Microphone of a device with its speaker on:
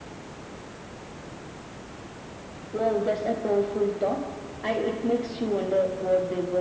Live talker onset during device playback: none

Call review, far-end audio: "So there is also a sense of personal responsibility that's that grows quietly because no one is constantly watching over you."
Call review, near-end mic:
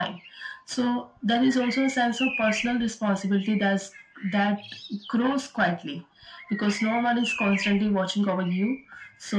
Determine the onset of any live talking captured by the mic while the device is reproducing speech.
none

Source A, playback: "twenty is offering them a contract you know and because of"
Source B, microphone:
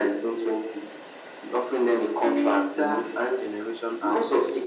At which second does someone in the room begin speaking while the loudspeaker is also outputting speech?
2 s

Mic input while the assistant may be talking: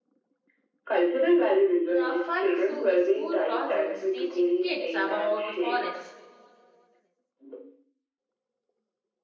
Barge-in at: 2 s

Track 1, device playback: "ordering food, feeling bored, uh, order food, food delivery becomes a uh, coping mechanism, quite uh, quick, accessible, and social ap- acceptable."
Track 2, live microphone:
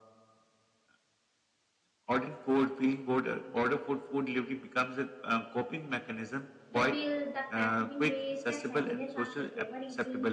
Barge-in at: 7 s

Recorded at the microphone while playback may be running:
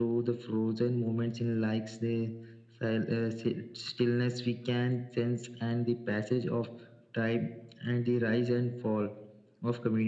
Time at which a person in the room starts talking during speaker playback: none

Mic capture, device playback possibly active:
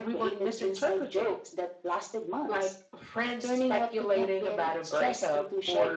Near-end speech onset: none

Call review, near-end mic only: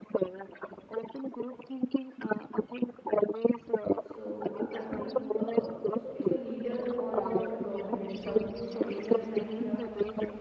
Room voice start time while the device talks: 4 s

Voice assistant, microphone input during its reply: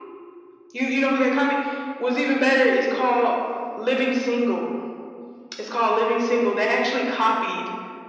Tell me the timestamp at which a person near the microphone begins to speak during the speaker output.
none

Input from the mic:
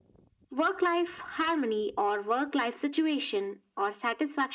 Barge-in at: none

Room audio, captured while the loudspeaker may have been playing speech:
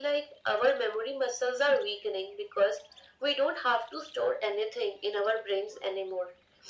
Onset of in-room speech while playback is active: none

